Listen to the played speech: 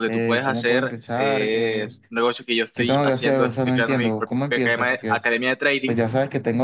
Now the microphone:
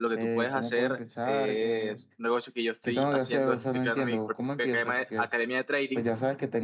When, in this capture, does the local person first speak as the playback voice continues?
none

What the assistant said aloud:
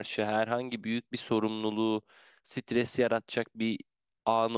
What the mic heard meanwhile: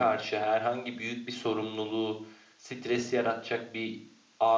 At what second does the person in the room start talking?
none

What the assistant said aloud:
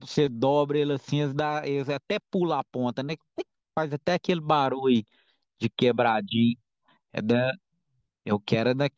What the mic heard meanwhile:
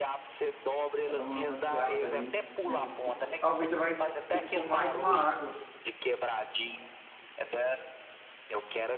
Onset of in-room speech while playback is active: 1.0 s

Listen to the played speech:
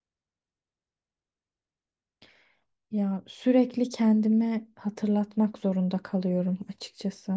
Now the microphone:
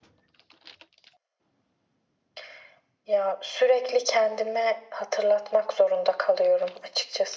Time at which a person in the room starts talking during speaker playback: none

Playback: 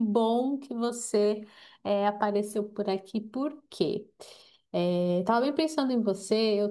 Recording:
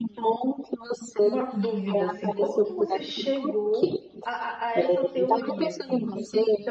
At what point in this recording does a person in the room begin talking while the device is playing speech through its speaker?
1.2 s

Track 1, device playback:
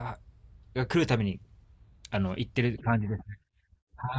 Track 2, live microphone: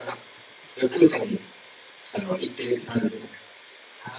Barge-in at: none

